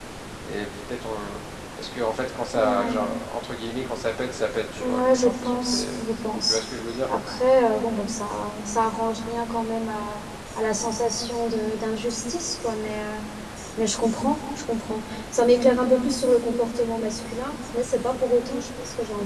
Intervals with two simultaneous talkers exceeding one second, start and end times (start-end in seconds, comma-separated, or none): 4.8-6.0